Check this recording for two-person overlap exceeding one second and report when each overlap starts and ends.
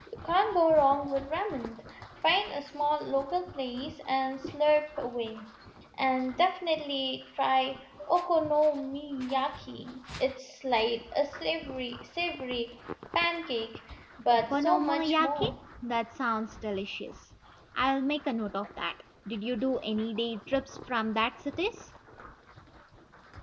14.3-15.5

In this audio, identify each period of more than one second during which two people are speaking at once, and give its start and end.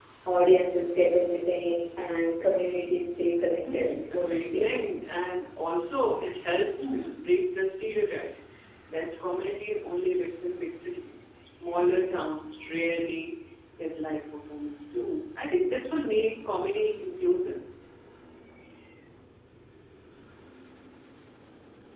3.5-4.8

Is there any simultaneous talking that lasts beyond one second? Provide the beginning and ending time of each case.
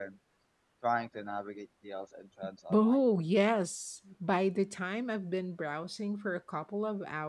none

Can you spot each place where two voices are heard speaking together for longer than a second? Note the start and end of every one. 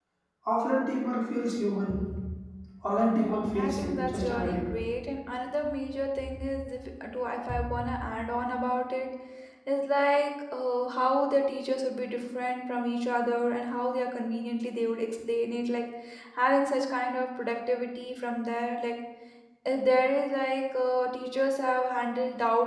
3.0-4.6

